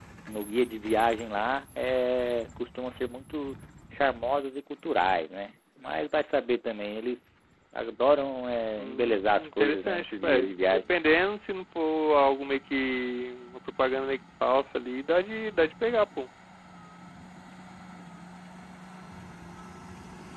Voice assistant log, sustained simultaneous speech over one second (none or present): present